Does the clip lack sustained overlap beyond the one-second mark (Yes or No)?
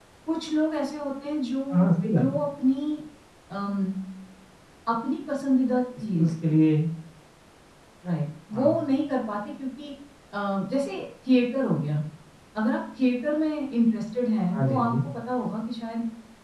Yes